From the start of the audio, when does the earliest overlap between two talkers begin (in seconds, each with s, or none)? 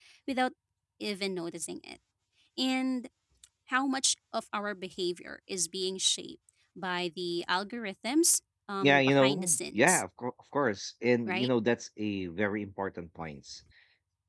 8.8 s